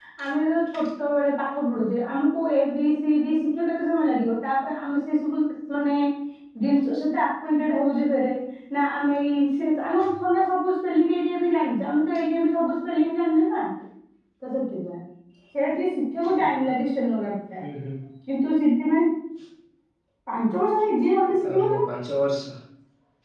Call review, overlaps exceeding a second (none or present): none